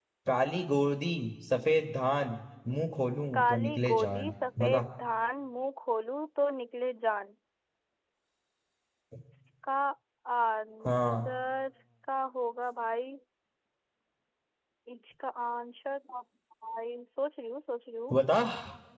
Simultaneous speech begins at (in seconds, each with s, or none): 3.3 s